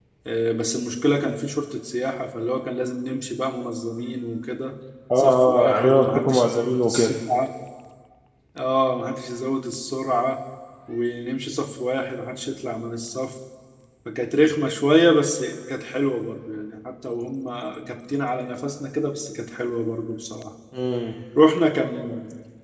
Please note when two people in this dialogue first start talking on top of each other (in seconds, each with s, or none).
5.1 s